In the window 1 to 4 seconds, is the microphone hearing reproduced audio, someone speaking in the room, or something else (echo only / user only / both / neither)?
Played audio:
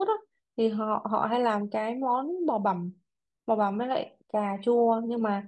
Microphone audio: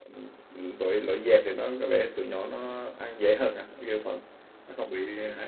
user only